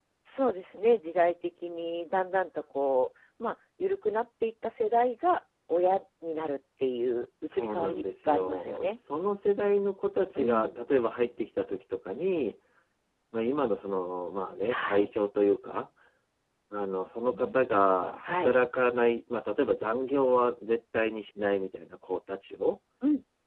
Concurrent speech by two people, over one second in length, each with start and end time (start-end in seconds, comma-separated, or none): 7.5-8.9